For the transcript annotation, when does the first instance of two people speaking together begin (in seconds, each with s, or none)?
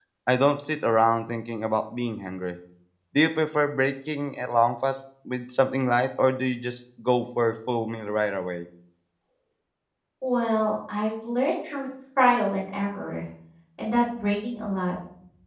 none